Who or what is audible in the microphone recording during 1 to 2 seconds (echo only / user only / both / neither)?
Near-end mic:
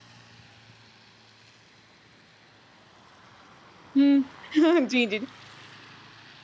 neither